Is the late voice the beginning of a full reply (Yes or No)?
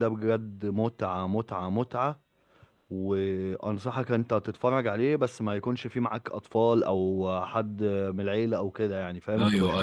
Yes